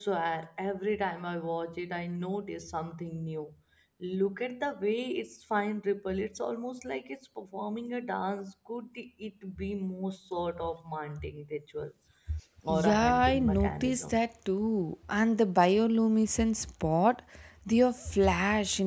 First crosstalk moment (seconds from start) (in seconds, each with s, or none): 12.7 s